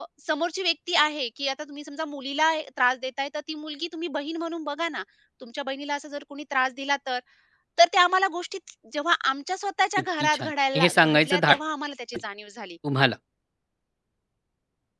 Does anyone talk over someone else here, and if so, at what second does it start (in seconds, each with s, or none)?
10.2 s